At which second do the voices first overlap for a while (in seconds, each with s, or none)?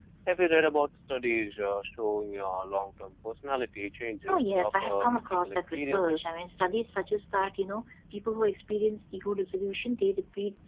4.3 s